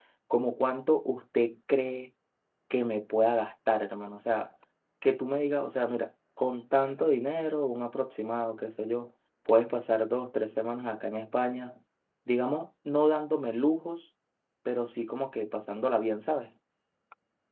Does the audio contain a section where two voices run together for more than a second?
No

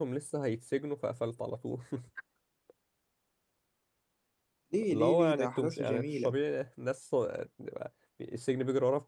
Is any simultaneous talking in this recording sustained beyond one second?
Yes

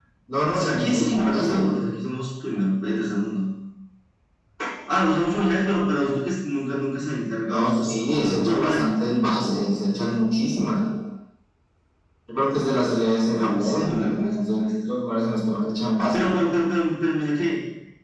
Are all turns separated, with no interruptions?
No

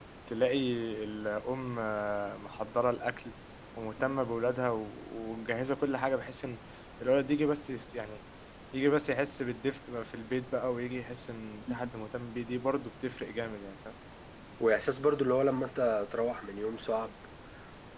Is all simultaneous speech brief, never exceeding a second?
Yes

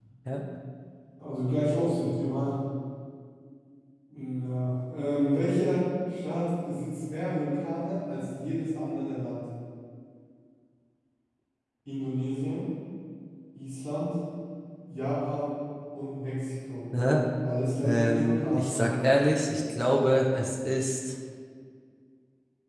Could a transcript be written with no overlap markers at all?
No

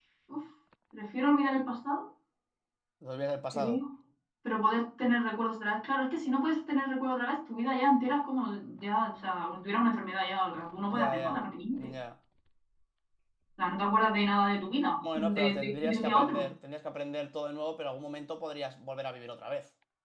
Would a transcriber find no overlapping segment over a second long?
No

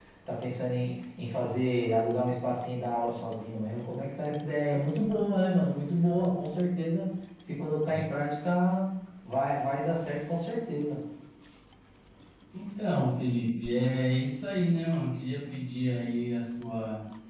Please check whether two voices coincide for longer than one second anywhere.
No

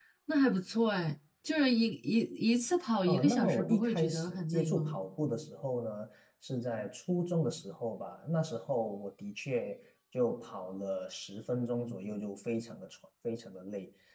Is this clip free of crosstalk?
No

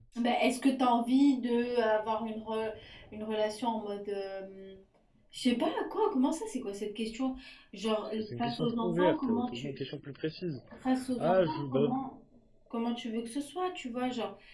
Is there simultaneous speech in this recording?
Yes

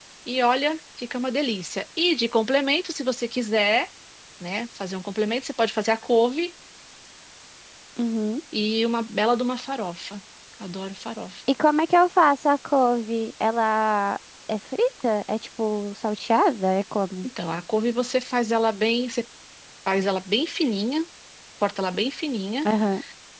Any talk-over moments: No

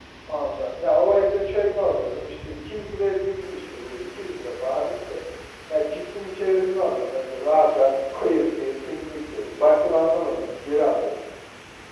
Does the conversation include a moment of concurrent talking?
No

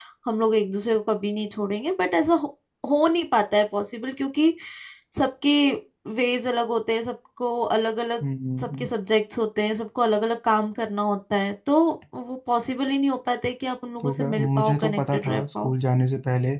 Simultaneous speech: Yes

